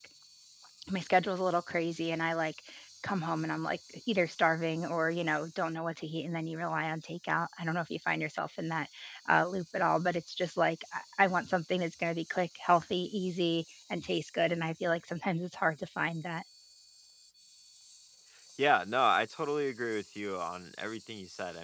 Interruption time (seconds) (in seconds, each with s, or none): none